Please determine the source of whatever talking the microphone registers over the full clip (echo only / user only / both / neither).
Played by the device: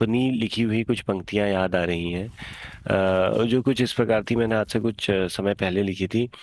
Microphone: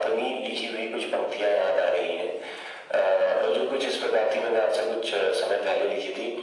echo only